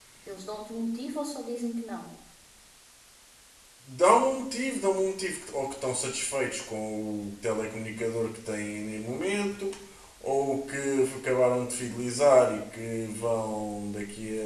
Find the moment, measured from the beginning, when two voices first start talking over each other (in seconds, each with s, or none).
none